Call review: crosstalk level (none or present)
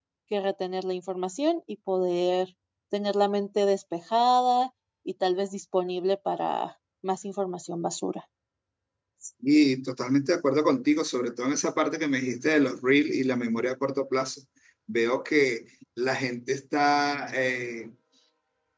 none